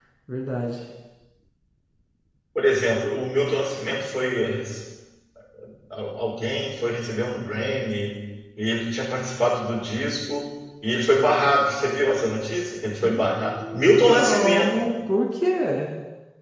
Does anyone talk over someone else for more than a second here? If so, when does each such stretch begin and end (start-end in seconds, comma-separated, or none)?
13.0-14.9